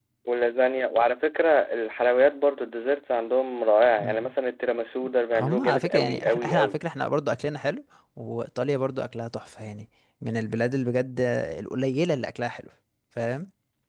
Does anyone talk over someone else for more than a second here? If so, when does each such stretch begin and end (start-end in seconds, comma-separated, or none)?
5.3-6.8